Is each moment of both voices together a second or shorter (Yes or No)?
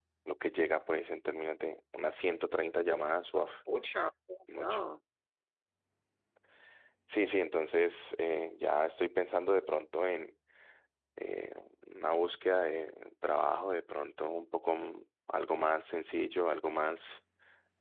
Yes